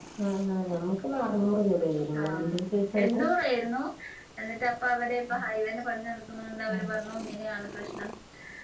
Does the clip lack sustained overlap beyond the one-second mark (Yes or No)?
Yes